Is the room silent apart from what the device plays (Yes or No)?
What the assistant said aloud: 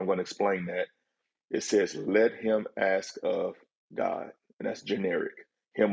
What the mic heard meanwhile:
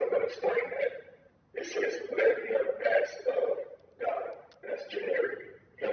Yes